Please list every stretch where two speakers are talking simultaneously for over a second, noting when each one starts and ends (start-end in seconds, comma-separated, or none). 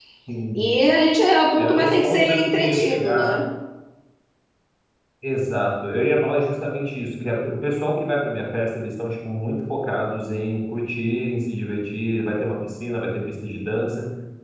1.6-3.4